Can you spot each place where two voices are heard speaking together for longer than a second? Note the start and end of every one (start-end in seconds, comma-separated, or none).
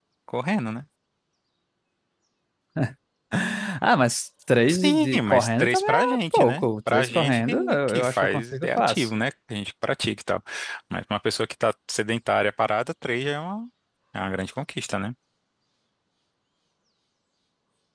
4.7-9.1